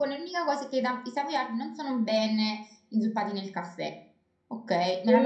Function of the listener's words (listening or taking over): taking over